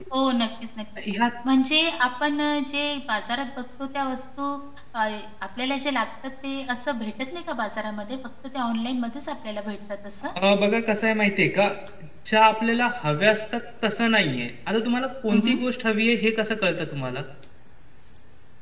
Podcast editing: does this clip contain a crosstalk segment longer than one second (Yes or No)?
No